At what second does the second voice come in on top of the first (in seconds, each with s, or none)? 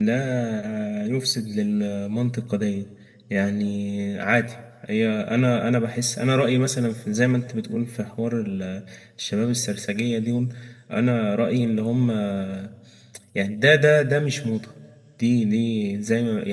none